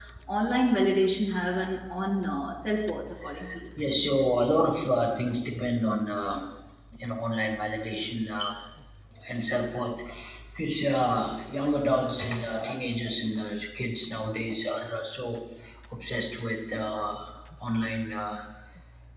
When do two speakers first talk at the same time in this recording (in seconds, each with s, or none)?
none